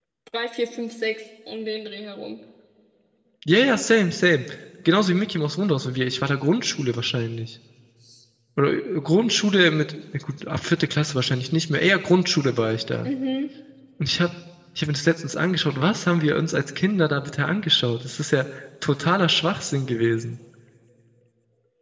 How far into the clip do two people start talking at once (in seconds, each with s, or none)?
none